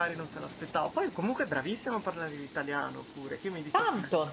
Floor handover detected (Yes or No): Yes